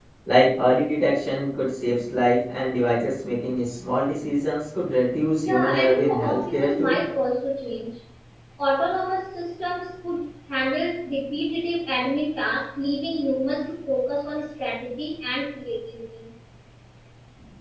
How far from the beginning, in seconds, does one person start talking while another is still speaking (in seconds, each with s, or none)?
5.4 s